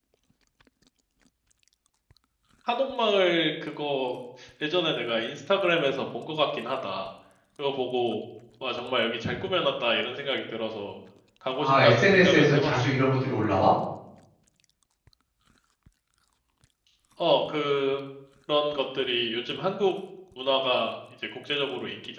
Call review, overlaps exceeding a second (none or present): present